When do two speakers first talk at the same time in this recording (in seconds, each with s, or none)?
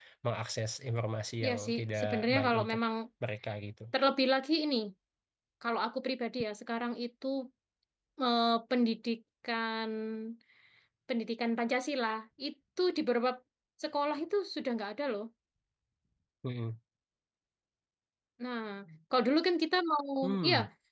1.4 s